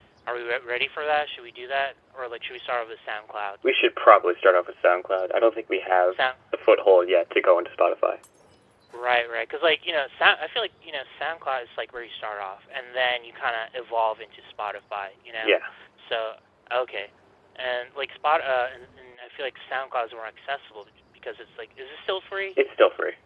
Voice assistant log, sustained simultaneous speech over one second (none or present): none